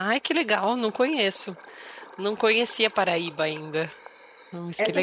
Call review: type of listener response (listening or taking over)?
taking over